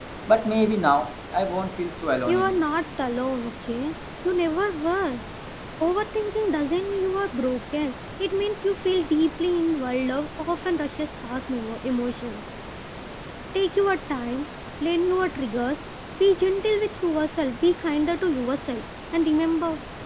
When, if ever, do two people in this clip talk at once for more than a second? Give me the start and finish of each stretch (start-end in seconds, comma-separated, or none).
none